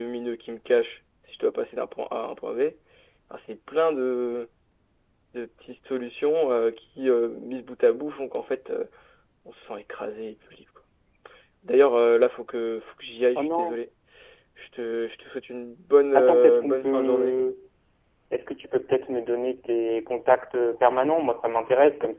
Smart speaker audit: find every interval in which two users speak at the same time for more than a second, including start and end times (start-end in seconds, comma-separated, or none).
16.1-17.4